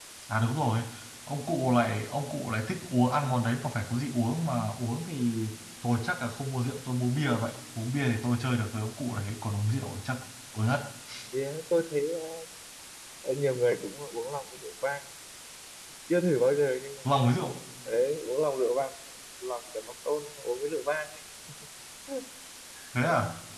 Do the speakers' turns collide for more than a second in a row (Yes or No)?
No